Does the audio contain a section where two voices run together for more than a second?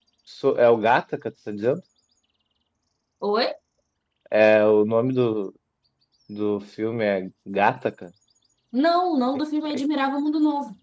No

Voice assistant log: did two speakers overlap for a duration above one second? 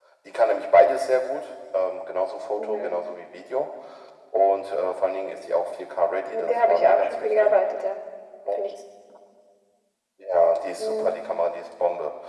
Yes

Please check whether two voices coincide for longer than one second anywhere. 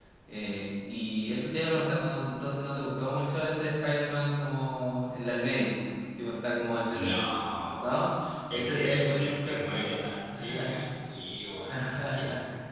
Yes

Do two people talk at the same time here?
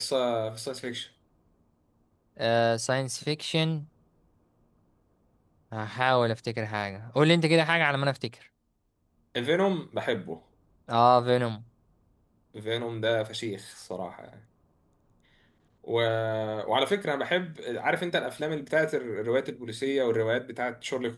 No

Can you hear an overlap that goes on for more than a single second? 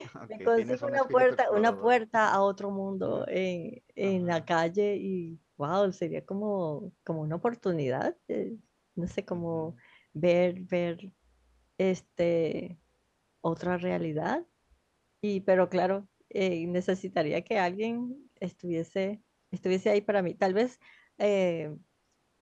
Yes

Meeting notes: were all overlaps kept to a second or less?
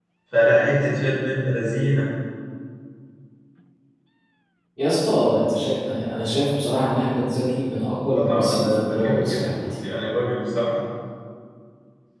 No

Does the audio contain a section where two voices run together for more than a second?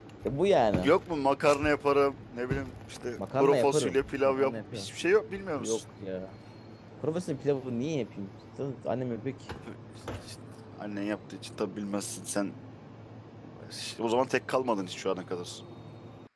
Yes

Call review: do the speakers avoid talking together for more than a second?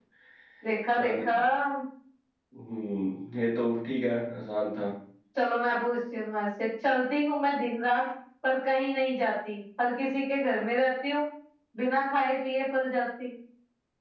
Yes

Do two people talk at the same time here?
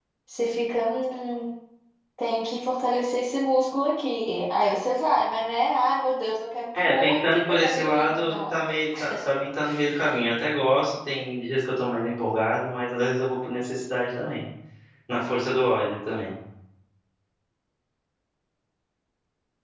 Yes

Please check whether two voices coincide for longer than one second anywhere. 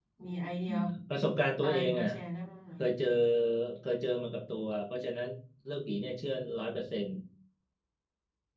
No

